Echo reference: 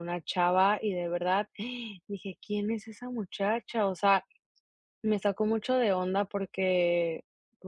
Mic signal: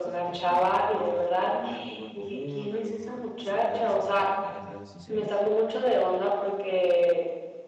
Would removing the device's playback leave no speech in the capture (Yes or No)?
No